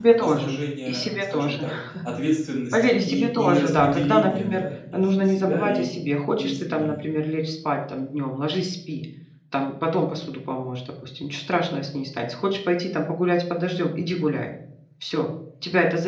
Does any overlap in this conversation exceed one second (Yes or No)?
Yes